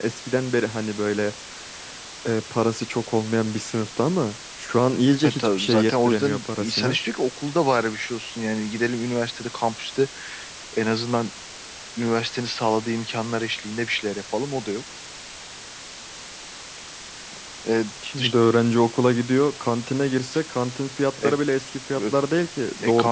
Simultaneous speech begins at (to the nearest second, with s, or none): 5 s